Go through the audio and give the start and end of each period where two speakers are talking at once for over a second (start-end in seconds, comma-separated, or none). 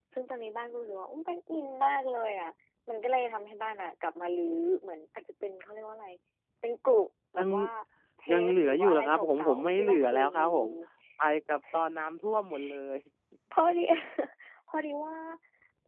8.3-10.5